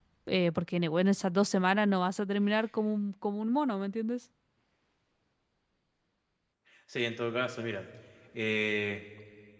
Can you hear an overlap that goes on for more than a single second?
No

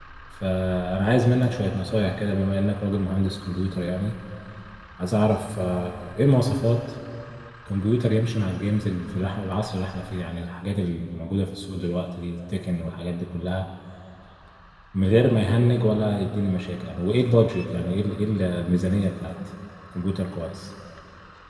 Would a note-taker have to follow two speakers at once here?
No

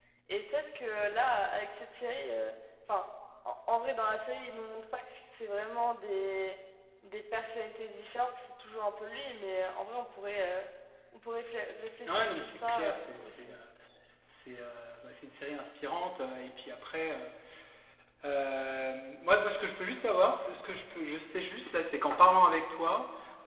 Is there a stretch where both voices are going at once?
Yes, from 12.1 s

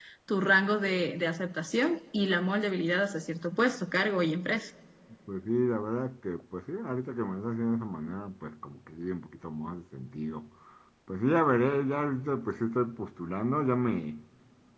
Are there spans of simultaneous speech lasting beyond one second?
No

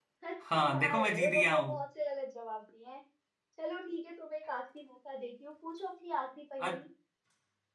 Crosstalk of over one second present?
Yes, from 0.5 s

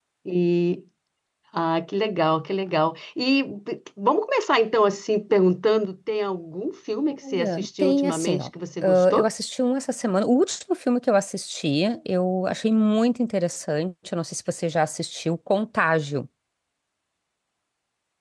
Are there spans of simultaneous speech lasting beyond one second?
Yes, from 7.1 s

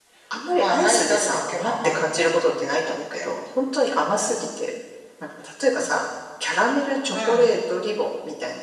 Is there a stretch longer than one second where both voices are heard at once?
Yes, from 0.5 s

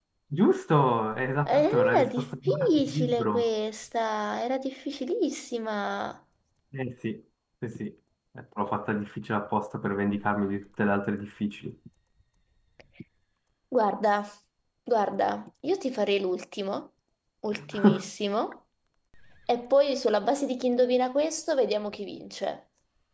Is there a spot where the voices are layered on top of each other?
Yes, from 1.5 s

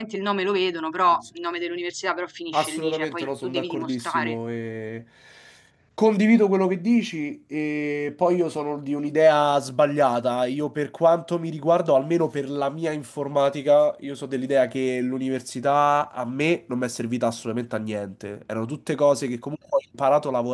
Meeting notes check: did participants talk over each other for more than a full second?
Yes, from 2.5 s

